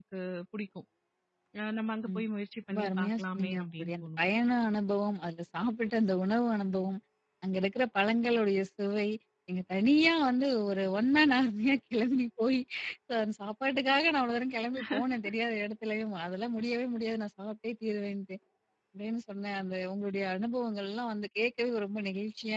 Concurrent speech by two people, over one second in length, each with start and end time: 2.7-4.2

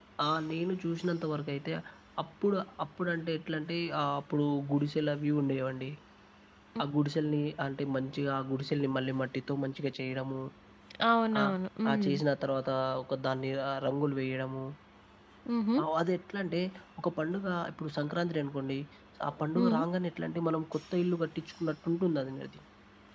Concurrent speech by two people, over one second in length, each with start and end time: none

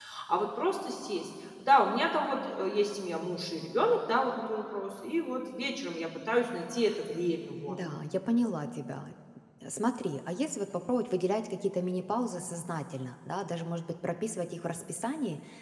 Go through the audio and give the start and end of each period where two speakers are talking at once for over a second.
none

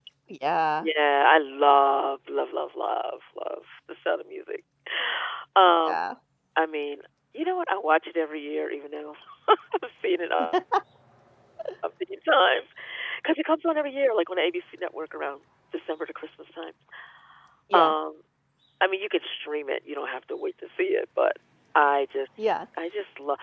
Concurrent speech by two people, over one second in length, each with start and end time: none

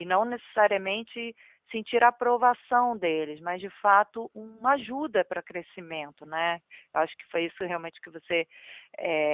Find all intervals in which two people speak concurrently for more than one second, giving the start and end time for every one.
none

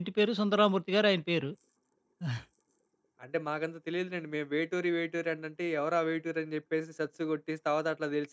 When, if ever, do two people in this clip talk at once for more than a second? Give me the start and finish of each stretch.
none

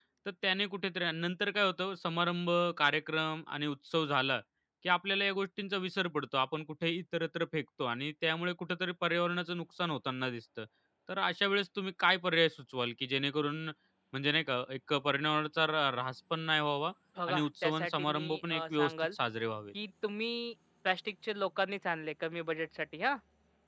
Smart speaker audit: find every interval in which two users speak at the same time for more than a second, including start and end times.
17.3-19.1

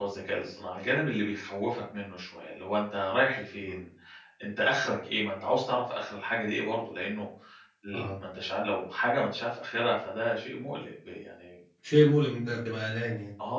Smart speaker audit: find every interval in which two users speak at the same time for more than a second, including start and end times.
none

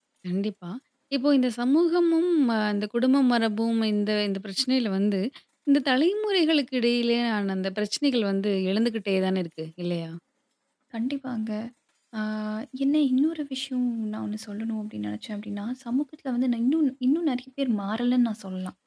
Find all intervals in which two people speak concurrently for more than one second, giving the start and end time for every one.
none

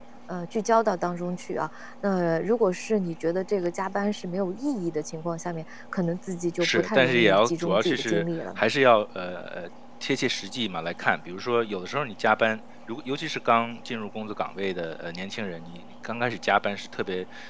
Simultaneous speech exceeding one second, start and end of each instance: 6.6-8.6

